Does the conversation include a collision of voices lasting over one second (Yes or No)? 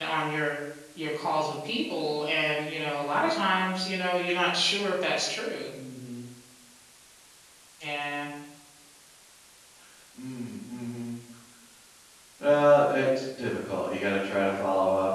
No